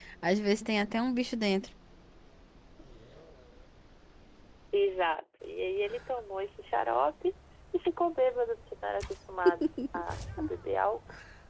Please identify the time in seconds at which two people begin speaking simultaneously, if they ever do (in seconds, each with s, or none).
none